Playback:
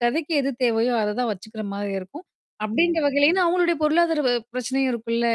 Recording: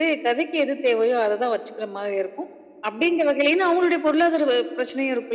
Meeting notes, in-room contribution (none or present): none